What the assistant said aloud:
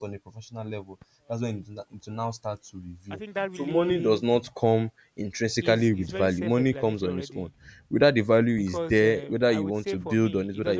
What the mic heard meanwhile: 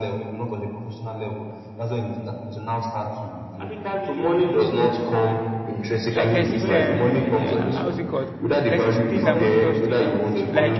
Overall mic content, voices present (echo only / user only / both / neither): both